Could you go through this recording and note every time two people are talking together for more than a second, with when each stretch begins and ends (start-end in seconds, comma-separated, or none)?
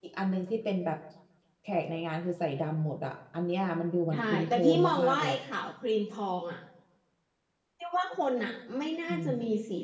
4.1-5.4